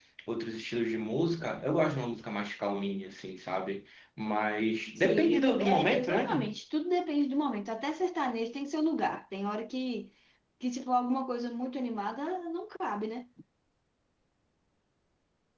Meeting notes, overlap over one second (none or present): present